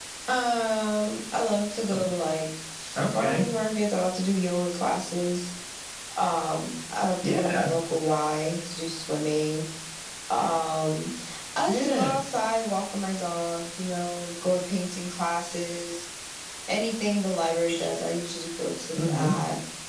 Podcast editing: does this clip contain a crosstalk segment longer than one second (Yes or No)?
No